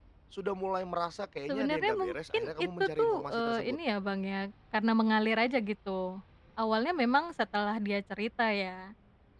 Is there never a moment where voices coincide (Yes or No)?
No